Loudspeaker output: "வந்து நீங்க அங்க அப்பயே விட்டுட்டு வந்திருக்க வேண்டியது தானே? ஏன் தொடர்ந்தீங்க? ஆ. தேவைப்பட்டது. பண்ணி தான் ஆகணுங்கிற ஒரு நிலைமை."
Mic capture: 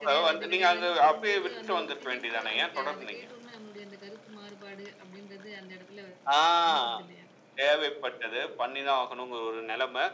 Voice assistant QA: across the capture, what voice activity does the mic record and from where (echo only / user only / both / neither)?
both